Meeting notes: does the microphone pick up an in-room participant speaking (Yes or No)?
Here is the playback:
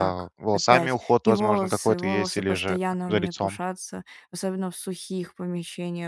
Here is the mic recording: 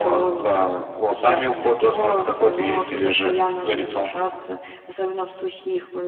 No